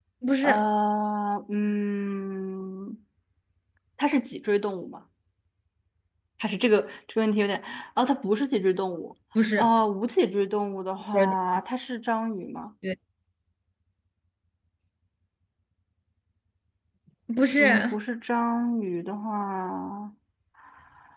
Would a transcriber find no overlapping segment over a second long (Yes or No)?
Yes